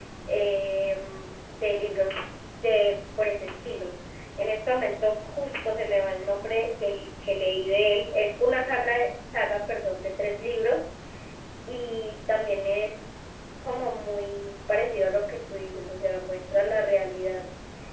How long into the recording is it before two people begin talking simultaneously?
none

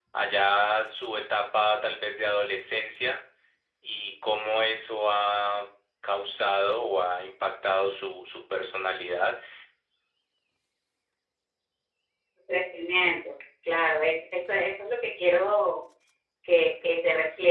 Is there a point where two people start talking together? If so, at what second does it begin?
none

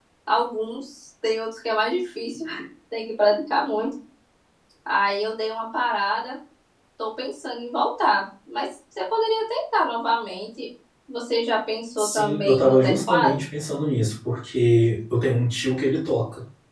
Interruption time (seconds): 12.0 s

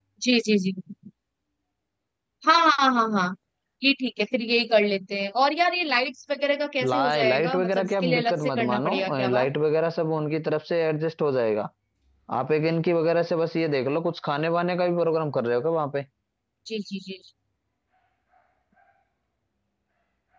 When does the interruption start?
6.8 s

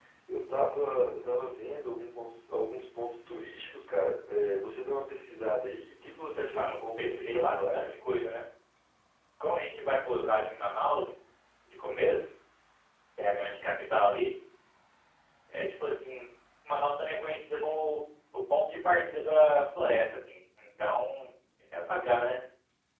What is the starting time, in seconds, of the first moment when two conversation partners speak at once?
6.5 s

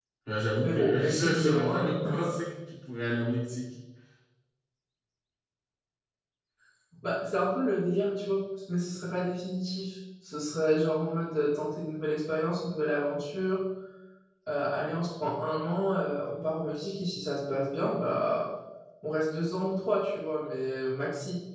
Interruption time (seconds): 0.6 s

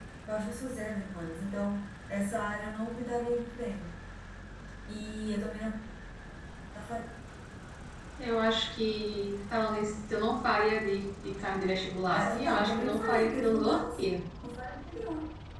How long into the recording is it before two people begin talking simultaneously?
12.1 s

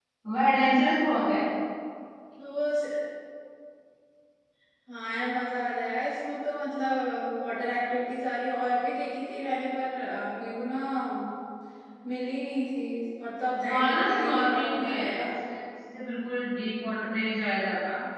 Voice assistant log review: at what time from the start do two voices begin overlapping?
13.6 s

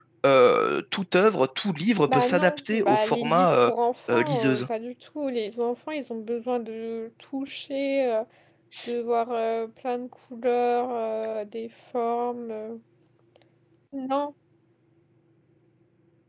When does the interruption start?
2.1 s

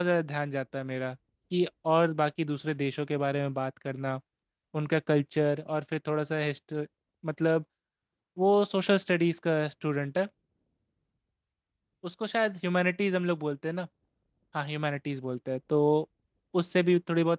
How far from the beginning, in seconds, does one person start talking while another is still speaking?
none

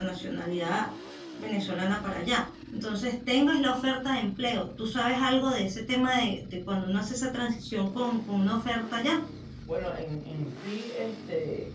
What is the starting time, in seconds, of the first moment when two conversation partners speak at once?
none

